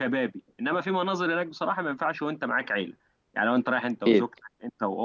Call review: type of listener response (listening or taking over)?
listening